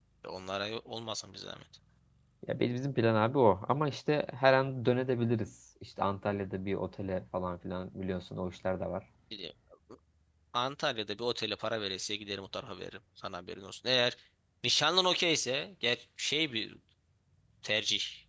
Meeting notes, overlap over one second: none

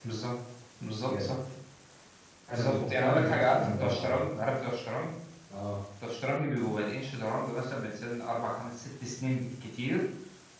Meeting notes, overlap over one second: present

